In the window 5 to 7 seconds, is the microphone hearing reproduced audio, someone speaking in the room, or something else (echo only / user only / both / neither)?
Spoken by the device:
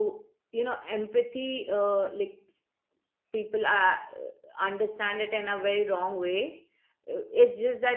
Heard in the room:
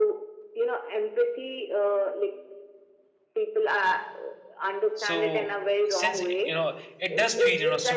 both